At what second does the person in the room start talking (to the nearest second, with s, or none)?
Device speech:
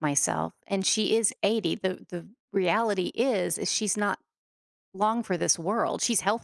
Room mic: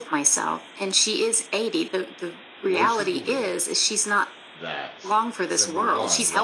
3 s